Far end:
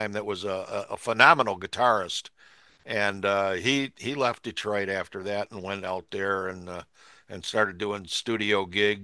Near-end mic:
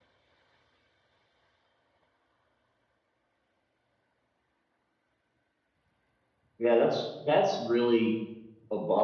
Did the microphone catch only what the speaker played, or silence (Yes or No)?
No